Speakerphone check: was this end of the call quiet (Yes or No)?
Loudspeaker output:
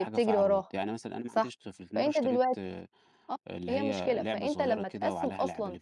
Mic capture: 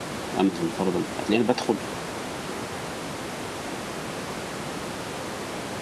No